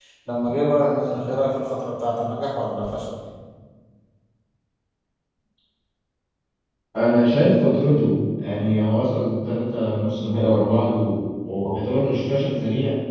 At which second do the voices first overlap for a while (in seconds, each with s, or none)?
none